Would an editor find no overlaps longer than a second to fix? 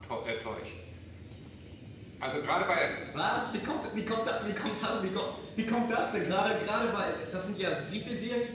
Yes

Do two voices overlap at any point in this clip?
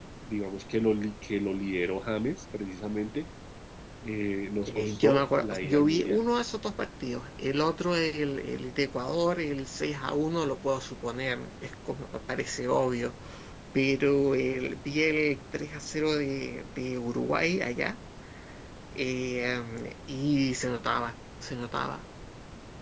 Yes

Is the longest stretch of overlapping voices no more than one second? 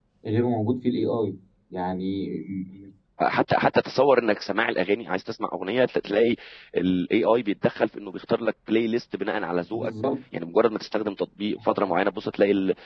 Yes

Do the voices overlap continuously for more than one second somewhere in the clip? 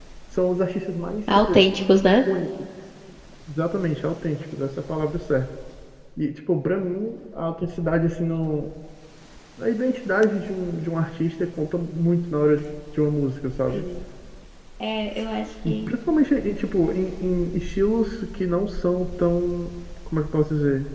No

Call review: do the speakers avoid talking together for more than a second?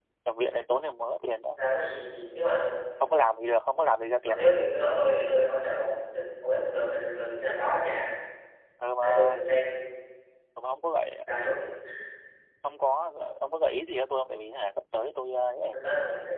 Yes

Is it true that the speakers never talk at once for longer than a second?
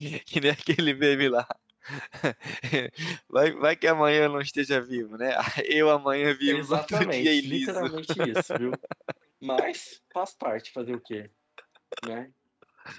No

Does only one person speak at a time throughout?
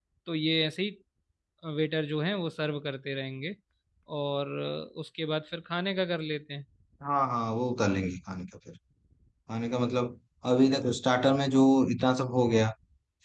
Yes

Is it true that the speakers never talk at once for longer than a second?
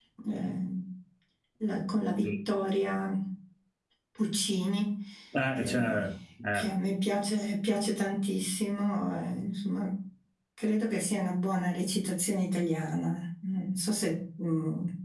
Yes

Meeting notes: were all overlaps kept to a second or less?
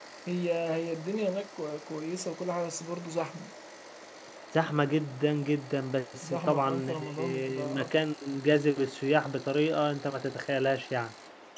No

